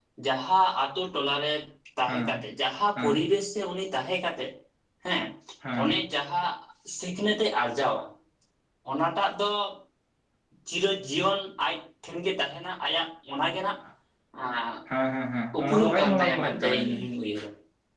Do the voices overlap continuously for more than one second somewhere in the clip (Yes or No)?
Yes